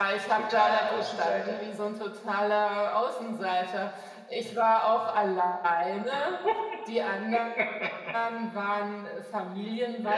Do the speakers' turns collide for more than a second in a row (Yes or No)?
Yes